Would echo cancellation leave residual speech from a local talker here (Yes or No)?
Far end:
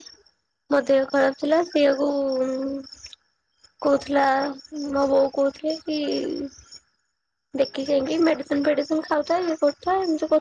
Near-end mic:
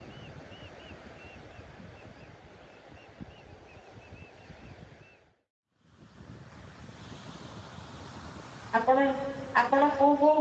Yes